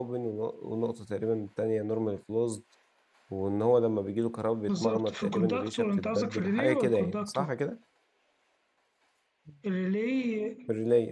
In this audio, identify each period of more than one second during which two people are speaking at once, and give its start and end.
4.7-7.5

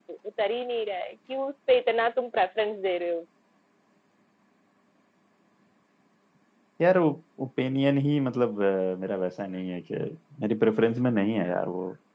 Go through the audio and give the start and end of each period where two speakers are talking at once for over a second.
none

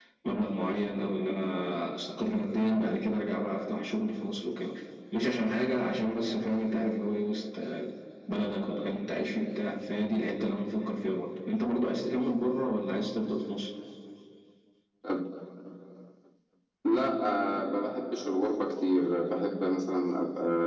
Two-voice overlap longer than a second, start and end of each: none

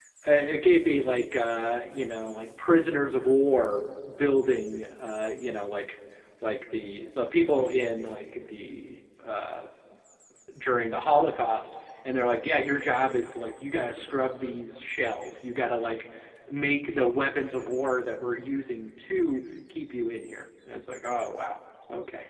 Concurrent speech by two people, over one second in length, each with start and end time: none

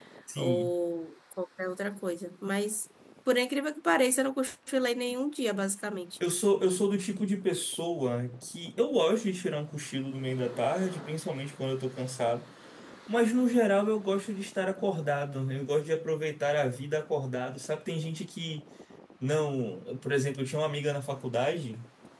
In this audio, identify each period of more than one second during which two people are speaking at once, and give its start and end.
none

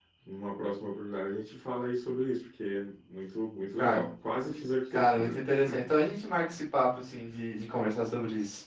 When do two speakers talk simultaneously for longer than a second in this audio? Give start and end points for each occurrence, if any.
none

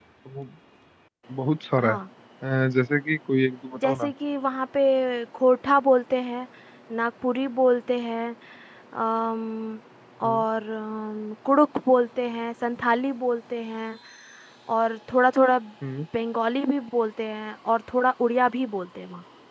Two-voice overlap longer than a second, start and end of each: none

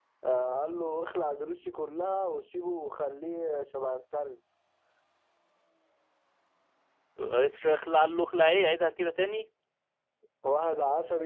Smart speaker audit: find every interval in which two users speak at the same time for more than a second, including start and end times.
none

